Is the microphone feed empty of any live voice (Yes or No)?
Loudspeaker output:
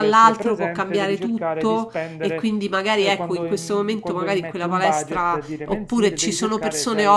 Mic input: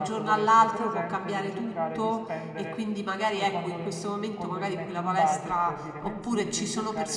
Yes